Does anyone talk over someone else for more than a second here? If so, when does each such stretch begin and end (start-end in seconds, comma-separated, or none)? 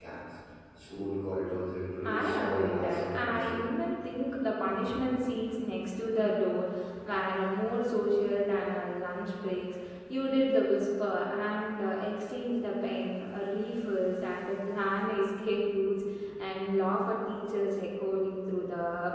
2.0-3.6